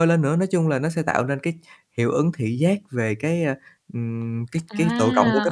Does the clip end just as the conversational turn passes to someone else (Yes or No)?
Yes